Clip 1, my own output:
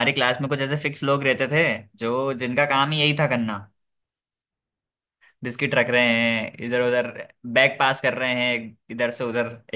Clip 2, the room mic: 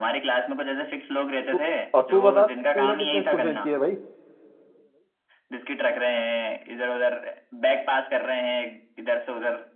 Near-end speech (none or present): present